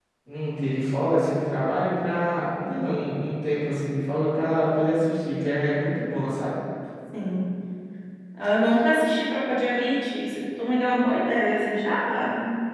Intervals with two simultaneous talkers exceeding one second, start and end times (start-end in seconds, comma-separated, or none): none